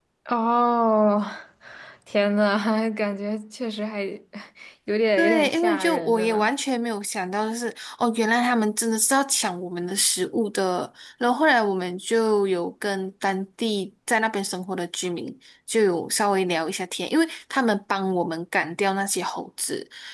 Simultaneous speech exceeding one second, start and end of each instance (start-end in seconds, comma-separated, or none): 5.2-6.5